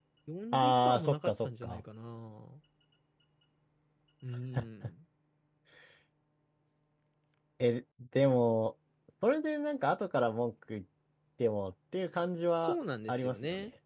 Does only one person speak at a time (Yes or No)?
No